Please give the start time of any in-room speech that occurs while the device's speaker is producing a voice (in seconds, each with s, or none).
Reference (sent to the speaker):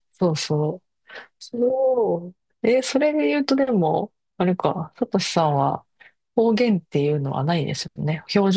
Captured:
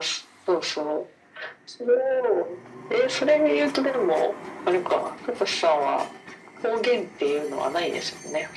none